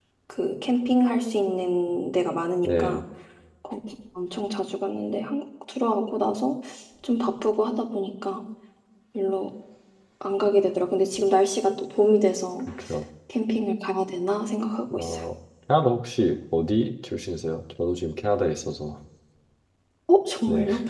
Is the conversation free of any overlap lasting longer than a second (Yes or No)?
Yes